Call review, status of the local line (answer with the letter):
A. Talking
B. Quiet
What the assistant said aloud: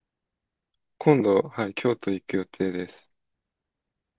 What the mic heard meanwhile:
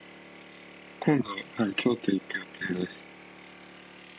B